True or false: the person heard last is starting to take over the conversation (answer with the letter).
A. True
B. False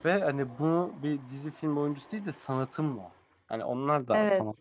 B